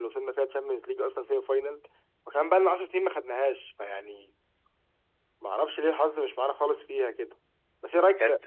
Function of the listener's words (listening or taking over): listening